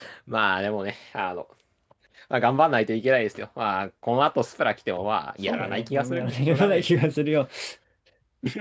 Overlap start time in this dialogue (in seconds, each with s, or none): 5.4 s